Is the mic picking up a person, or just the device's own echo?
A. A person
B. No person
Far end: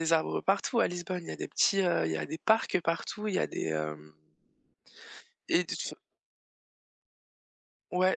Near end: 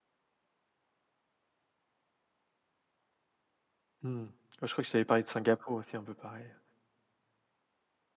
A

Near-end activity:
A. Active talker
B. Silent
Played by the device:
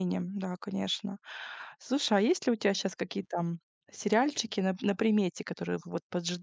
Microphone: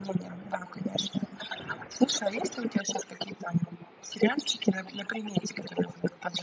B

